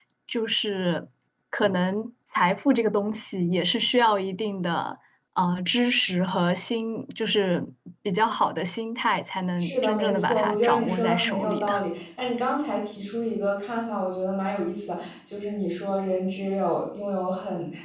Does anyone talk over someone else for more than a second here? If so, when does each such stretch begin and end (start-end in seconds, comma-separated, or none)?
9.6-11.8